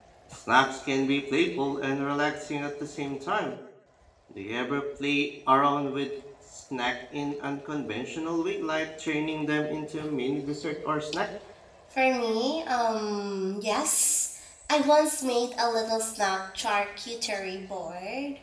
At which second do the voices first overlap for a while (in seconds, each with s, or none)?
none